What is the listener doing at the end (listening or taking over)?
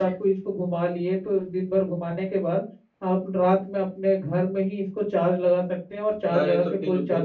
taking over